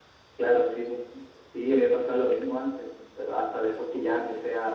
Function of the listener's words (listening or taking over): listening